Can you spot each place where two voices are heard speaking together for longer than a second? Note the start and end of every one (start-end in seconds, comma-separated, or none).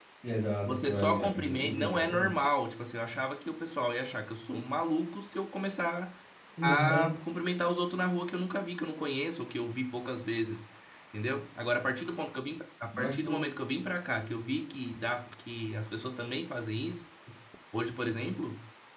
0.7-2.4